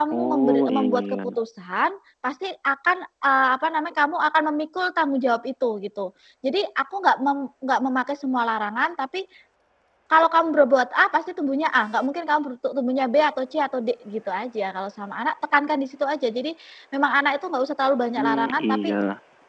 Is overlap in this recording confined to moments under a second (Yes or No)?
No